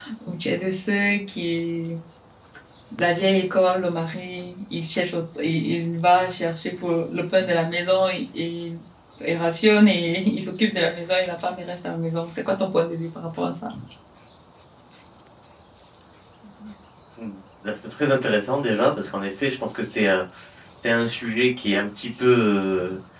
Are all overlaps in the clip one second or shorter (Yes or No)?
Yes